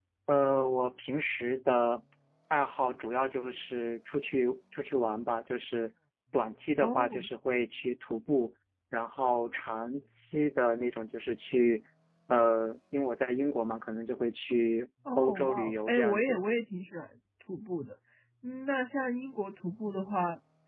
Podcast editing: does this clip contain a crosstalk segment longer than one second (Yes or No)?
Yes